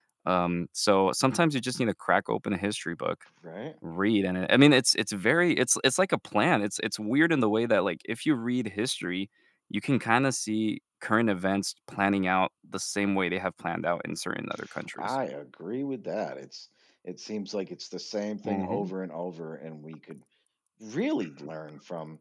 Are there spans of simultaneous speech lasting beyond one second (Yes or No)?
No